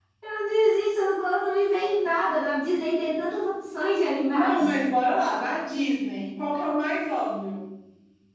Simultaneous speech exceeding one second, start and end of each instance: none

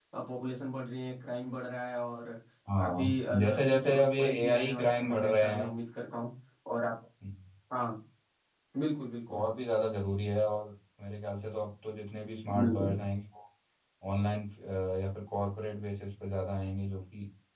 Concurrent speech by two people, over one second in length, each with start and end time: 2.8-5.7

